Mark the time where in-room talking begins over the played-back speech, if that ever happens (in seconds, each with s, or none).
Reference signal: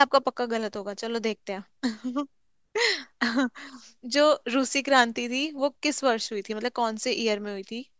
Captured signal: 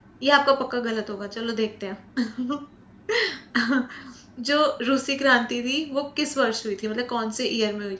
none